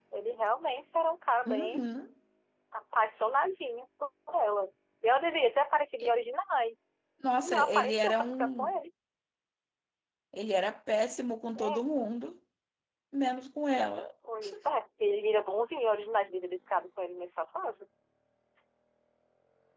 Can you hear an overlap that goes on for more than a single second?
Yes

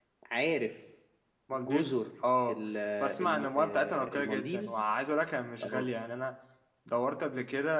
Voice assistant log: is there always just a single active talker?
No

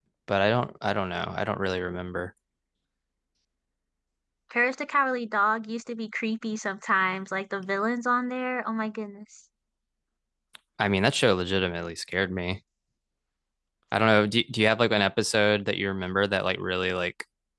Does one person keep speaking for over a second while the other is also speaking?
No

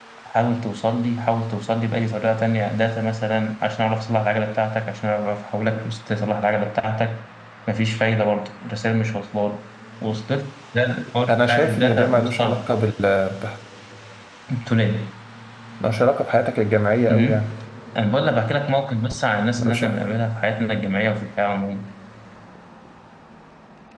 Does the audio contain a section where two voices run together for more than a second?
Yes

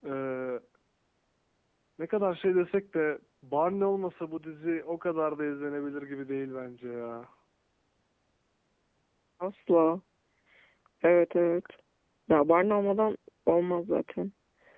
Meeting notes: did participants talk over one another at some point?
No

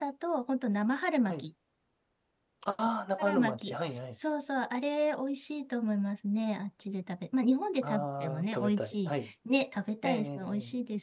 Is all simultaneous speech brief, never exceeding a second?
No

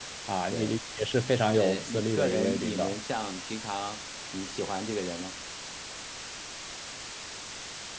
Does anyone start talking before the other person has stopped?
Yes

